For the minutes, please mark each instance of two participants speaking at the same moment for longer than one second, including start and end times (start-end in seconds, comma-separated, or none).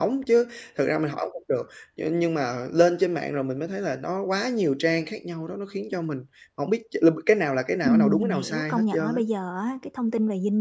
7.8-9.2